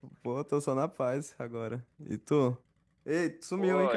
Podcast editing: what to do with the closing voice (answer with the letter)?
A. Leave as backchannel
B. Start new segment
B